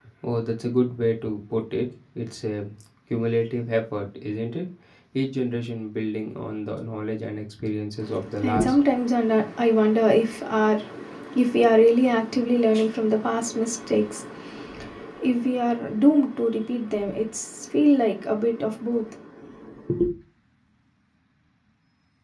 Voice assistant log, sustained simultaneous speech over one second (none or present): none